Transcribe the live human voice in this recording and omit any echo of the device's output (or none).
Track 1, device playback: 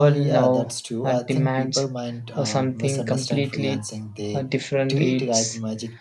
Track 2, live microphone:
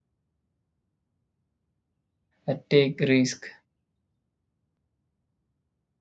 uh, take risk